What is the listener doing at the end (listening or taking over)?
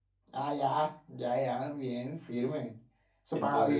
taking over